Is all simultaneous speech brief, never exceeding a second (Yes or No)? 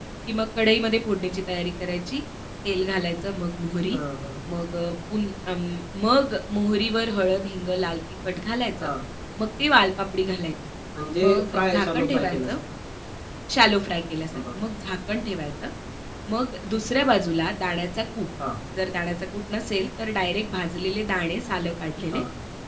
No